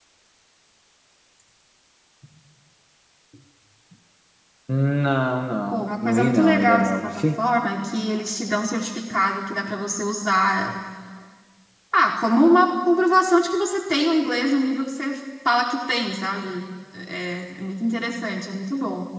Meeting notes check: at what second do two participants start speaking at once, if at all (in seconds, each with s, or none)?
5.7 s